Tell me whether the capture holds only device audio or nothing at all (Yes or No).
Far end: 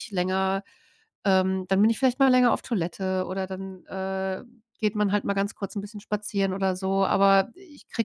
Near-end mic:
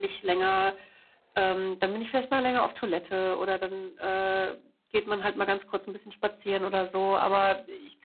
Yes